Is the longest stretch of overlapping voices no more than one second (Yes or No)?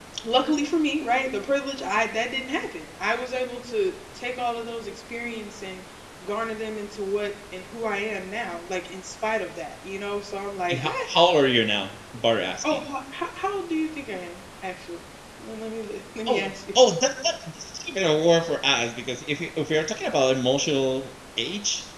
Yes